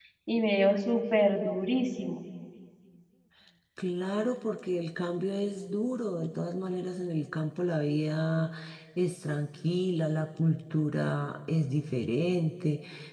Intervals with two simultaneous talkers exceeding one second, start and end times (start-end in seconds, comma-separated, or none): none